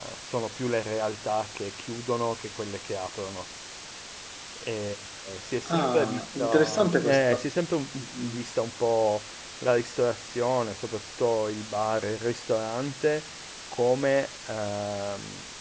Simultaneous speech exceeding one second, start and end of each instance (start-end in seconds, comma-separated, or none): 5.7-7.4